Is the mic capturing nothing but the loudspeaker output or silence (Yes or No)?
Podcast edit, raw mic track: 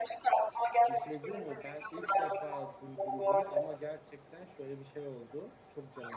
No